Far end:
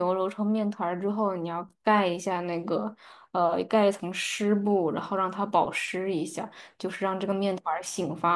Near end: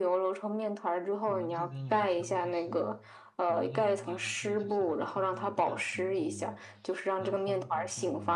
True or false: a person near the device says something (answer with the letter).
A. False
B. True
B